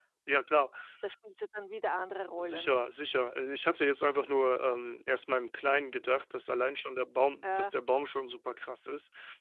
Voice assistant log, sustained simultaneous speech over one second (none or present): none